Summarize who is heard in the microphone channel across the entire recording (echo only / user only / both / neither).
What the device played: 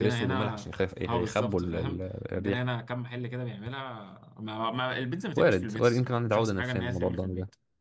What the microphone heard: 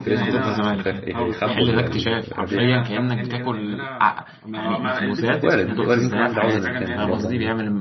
both